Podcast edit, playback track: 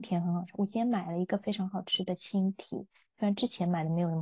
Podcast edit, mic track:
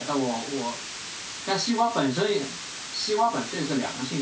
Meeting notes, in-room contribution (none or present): present